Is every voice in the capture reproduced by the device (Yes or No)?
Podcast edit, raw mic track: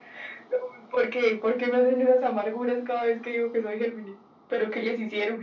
Yes